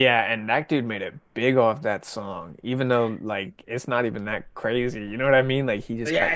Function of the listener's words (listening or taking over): taking over